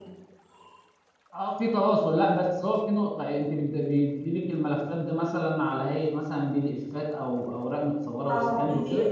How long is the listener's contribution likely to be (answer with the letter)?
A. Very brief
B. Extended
B